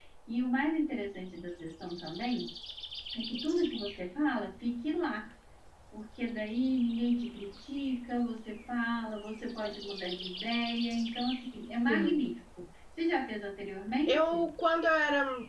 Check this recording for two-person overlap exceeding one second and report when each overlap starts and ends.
none

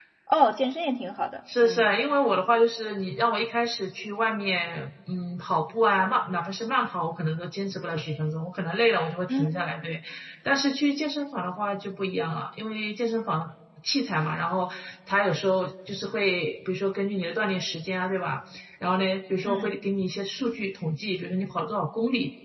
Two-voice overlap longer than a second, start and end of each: none

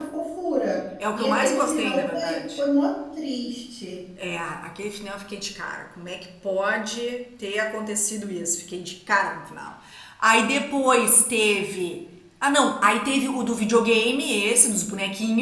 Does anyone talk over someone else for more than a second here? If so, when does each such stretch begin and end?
1.1-2.6

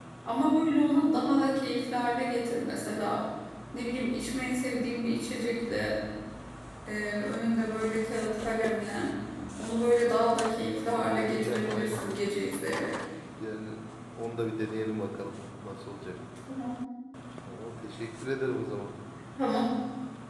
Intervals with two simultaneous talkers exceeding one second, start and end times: 10.8-12.0

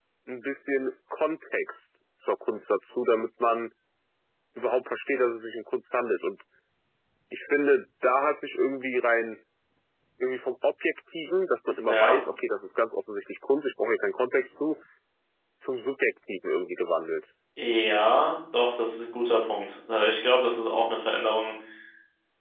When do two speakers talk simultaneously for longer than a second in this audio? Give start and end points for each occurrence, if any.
none

